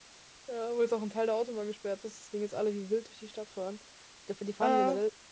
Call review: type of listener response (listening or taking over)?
listening